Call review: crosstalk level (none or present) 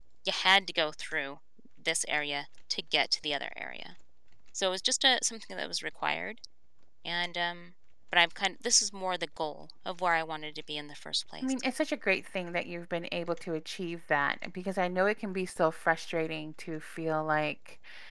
none